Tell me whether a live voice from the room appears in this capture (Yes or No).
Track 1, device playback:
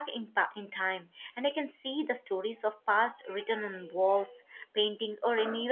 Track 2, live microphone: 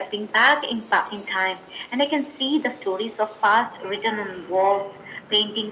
No